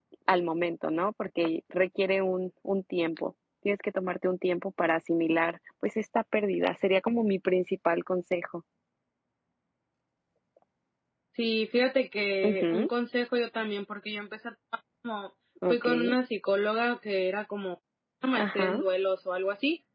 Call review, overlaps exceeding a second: none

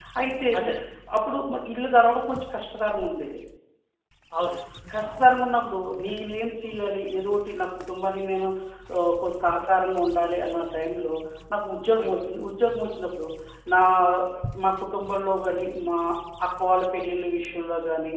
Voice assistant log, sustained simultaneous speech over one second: none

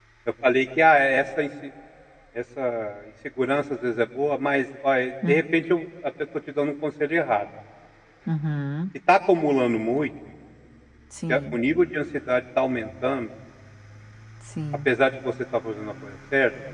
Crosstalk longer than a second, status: none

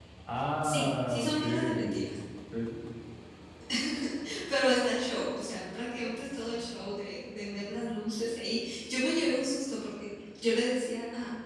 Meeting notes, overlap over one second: present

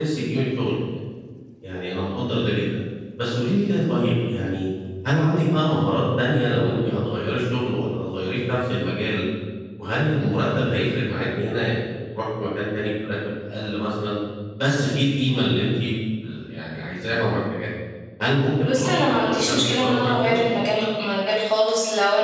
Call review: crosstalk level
present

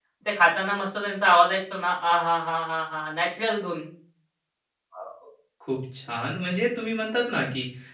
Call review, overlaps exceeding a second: none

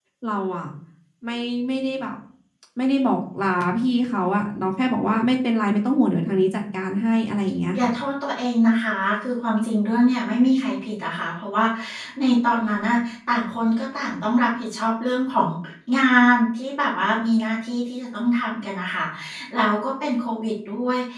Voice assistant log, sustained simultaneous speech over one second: none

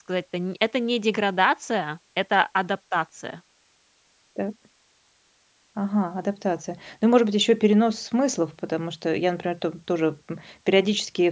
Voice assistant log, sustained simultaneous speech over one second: none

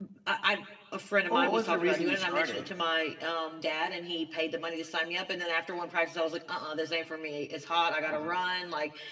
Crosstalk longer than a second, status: present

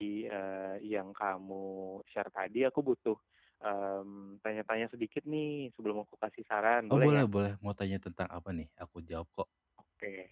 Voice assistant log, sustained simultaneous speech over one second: none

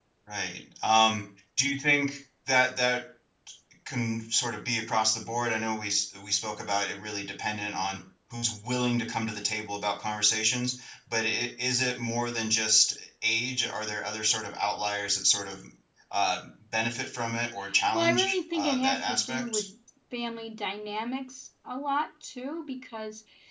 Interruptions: present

